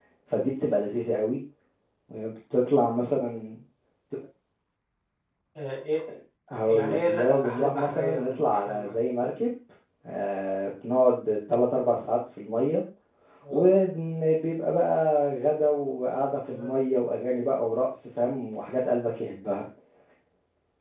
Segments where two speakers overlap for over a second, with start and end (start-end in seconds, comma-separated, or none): 6.6-9.4